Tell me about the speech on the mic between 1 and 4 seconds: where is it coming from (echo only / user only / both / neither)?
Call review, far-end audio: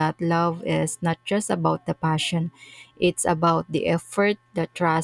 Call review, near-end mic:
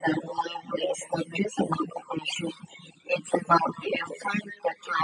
echo only